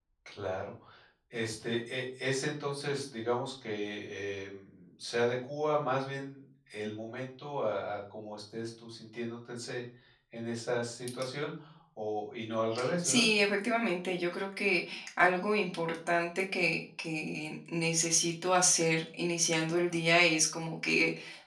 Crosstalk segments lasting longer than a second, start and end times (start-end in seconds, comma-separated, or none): none